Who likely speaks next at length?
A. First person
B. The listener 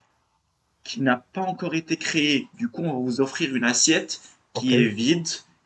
A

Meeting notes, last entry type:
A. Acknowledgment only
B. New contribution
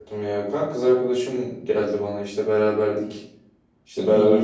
A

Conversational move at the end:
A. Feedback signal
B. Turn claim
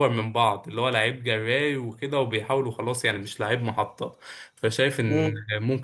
A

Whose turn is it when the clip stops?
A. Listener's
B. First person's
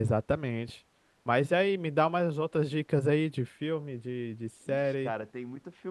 A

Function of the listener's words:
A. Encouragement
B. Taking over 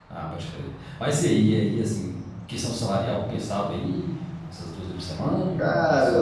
B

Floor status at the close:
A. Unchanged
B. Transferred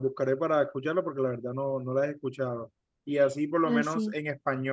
A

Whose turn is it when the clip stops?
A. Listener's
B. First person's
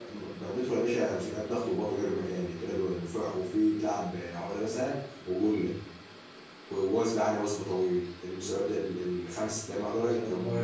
B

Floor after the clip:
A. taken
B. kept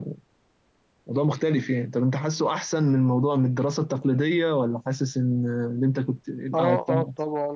A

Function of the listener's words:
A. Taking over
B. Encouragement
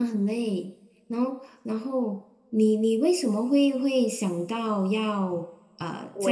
A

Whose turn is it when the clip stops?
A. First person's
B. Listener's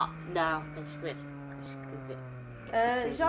B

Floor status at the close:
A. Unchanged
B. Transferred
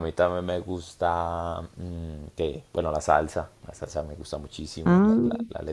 A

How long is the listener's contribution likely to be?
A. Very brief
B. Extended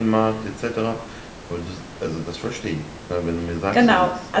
B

